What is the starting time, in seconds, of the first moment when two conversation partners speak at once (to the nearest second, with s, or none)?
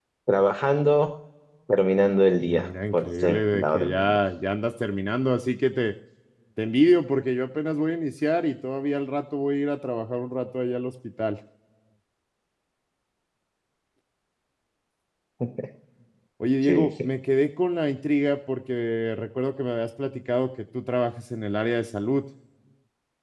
2 s